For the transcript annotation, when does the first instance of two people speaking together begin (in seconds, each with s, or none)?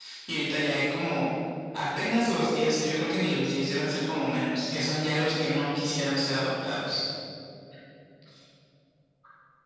none